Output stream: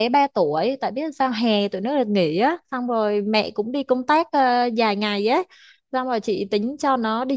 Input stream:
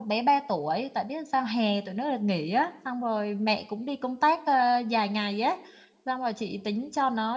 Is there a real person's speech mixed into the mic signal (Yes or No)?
No